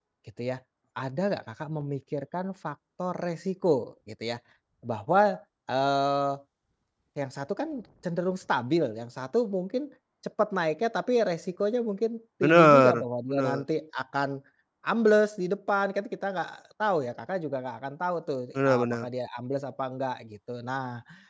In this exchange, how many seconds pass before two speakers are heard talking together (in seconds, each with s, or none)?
12.4 s